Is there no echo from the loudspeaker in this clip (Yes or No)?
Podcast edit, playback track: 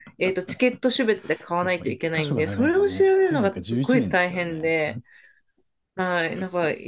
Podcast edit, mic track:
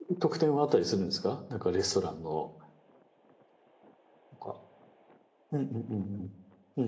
Yes